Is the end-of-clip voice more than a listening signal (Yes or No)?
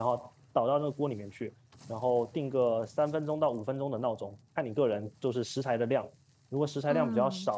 No